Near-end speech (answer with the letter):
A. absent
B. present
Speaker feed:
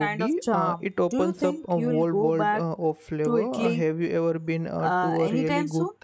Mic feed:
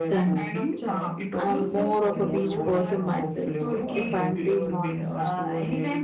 B